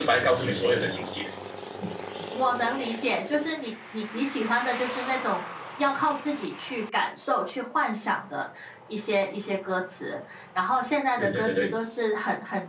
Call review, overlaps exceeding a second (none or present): none